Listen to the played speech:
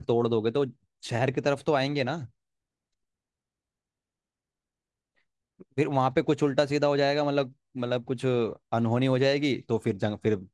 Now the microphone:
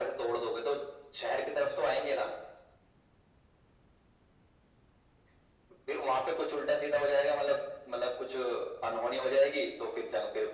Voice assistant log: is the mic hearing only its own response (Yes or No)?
Yes